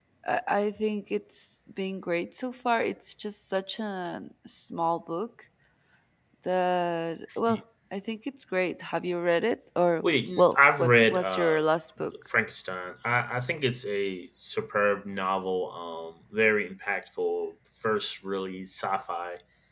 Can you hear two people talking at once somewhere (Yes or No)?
Yes